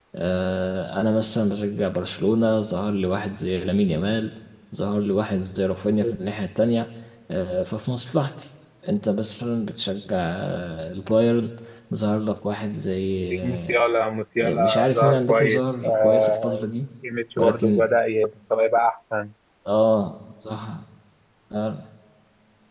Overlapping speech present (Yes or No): Yes